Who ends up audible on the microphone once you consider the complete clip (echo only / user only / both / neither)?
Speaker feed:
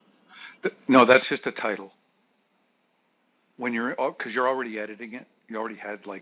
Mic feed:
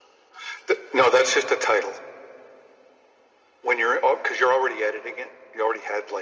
echo only